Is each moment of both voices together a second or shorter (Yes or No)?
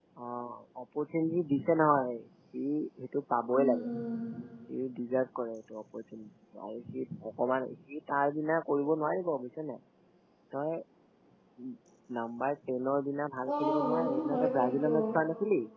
No